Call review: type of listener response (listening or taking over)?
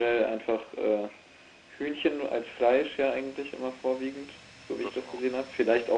listening